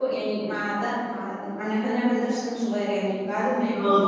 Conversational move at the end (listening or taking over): listening